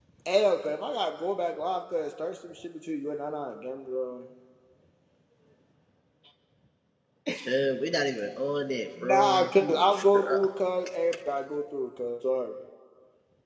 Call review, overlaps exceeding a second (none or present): present